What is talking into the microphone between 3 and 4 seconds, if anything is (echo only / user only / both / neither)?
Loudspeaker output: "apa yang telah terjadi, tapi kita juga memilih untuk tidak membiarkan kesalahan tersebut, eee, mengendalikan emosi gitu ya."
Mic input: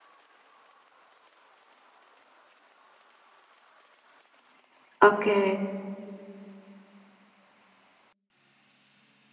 neither